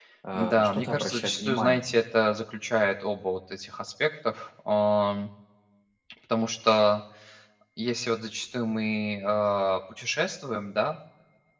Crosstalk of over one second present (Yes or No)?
Yes